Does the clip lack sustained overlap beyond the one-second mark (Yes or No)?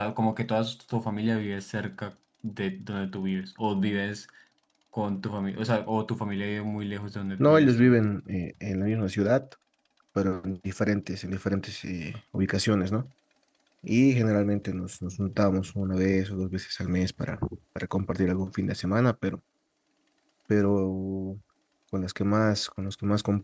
Yes